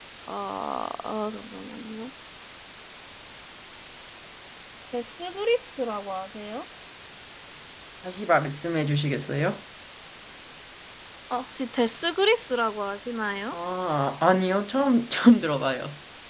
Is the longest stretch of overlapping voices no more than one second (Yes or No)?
Yes